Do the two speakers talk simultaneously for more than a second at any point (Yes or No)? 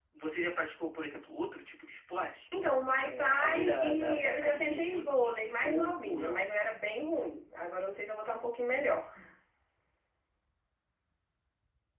Yes